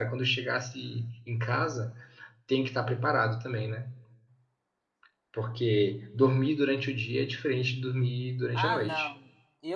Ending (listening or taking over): taking over